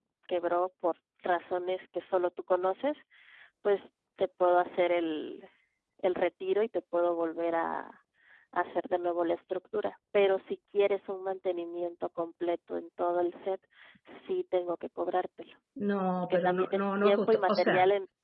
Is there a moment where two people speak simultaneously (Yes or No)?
Yes